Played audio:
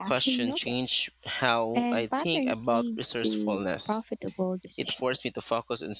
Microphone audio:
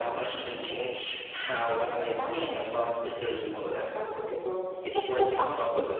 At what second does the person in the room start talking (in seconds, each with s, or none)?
4.9 s